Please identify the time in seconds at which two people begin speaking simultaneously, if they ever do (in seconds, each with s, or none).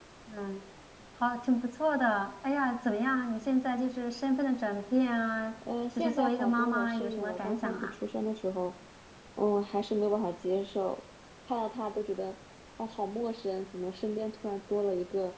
6.0 s